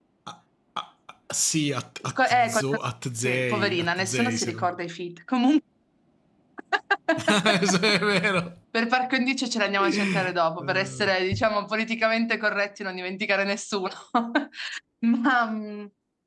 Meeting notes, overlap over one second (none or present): present